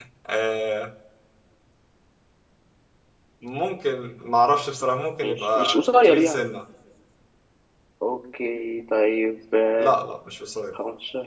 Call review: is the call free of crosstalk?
No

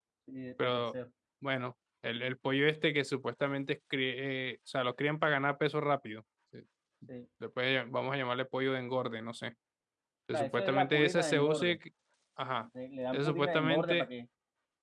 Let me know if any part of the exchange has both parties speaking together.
Yes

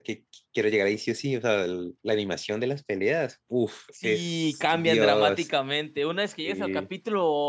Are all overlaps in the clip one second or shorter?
No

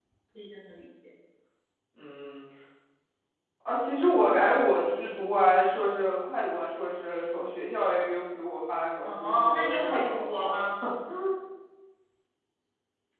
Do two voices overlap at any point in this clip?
Yes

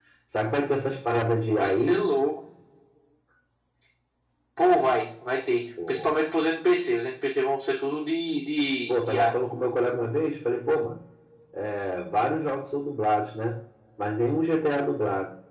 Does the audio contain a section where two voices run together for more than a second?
No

